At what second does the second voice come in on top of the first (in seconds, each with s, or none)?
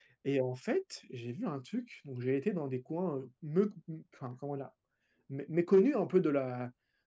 none